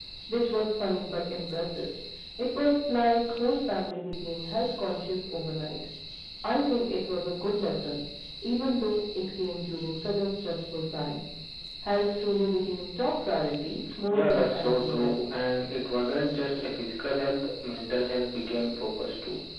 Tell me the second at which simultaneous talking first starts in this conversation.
14.1 s

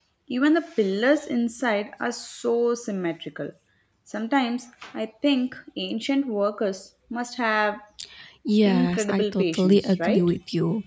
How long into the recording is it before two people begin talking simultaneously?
8.6 s

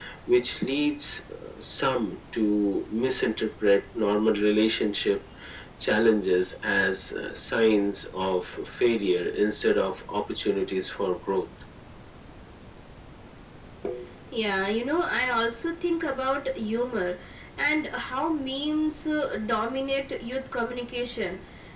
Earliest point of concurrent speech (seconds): none

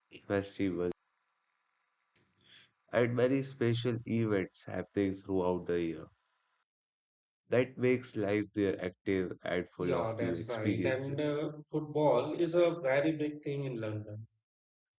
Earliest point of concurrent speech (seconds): 9.8 s

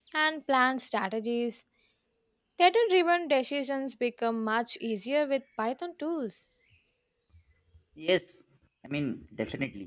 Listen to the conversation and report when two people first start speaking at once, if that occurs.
none

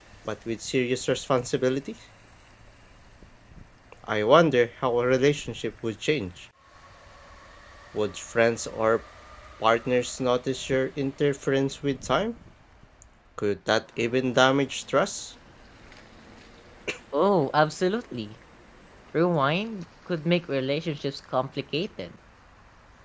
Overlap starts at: none

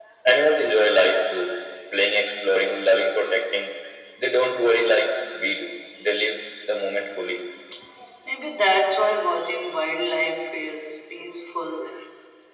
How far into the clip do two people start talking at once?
none

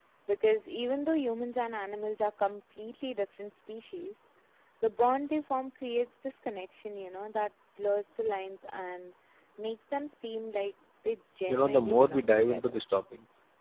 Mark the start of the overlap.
11.5 s

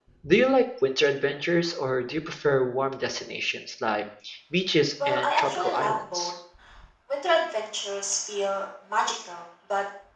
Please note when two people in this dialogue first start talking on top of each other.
5.1 s

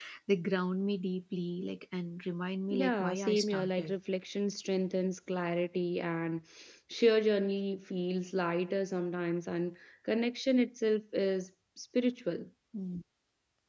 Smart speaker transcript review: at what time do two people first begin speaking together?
2.7 s

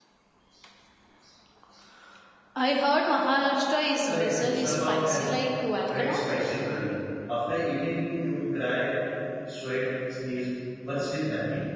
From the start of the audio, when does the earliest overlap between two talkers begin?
4.1 s

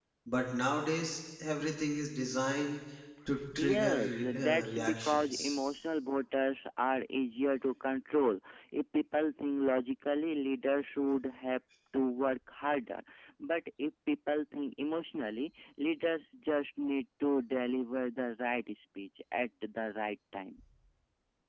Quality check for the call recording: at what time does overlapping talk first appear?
3.6 s

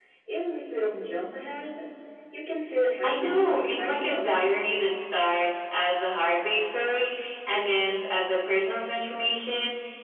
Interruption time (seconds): 3.0 s

